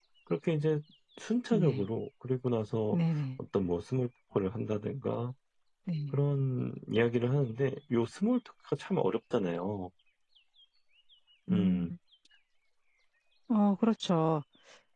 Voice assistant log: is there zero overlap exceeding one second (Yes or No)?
Yes